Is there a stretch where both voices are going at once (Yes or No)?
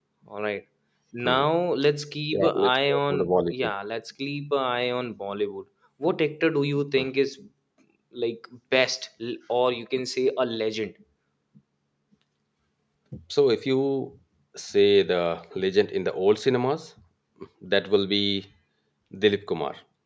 Yes